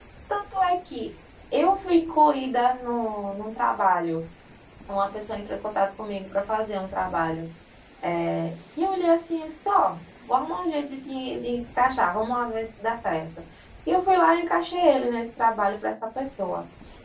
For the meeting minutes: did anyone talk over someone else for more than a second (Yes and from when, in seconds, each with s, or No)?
No